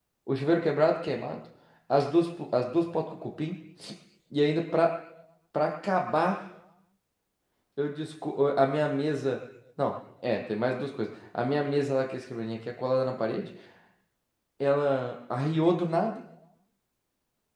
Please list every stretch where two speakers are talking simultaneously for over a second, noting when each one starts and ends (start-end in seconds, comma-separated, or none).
none